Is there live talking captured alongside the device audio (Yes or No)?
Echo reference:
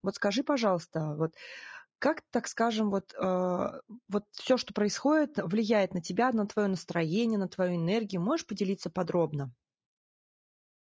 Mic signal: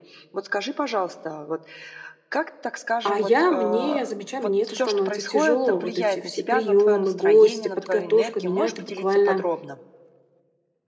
Yes